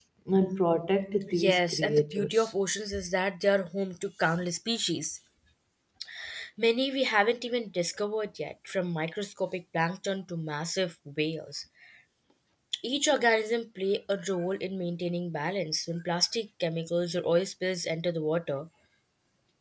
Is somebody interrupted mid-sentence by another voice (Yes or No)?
Yes